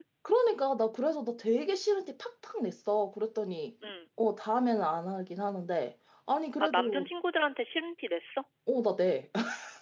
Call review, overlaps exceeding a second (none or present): none